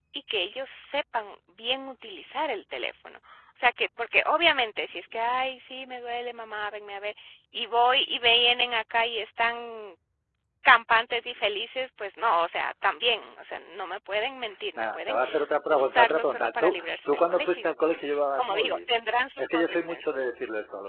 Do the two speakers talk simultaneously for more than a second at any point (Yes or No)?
Yes